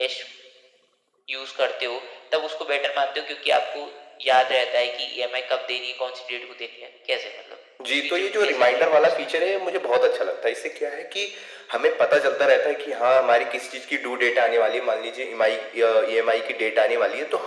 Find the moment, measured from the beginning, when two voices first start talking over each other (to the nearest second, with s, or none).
8 s